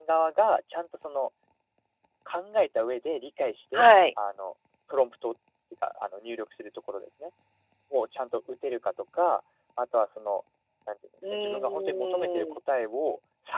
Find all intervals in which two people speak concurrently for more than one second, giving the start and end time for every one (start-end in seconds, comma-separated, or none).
11.3-12.6